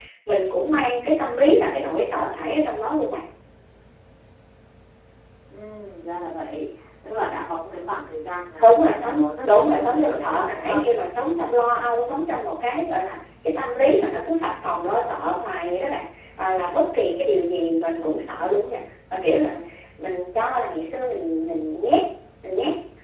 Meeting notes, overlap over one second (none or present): present